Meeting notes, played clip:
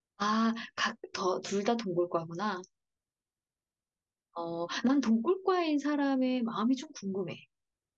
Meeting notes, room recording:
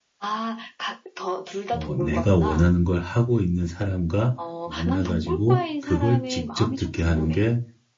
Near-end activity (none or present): present